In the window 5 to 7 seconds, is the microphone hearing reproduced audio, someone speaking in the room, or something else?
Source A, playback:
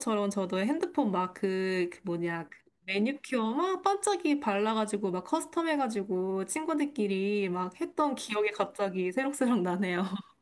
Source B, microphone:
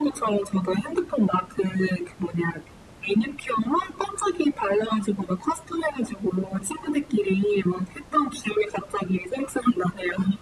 echo only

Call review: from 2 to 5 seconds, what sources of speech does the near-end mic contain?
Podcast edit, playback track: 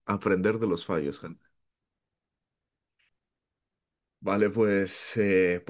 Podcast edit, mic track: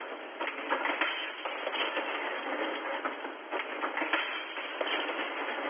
neither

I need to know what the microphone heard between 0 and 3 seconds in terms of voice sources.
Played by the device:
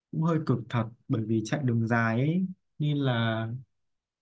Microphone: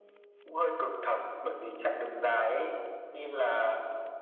echo only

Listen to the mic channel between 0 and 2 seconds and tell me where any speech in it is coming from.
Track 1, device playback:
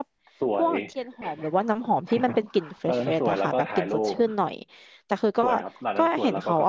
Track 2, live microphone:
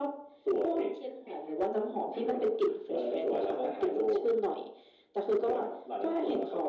echo only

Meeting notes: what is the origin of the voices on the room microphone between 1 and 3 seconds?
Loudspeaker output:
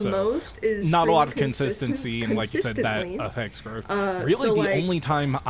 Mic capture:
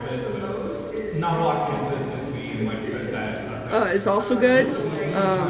echo only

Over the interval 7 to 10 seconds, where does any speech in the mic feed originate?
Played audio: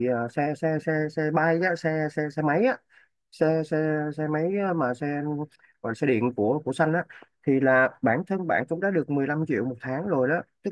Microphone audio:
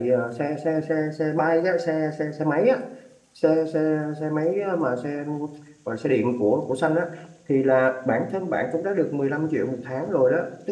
echo only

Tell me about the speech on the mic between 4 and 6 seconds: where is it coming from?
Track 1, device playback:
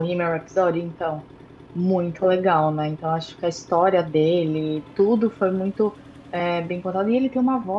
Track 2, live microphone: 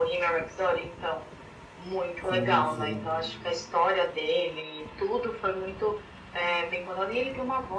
echo only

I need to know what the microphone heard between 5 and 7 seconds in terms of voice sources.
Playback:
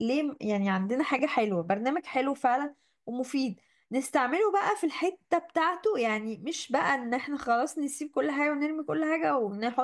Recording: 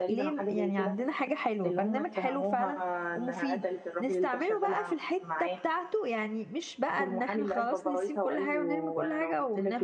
both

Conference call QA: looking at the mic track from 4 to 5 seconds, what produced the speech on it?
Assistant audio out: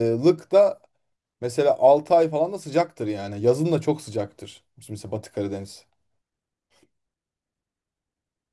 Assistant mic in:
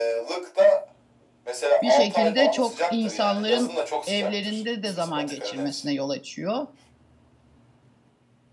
both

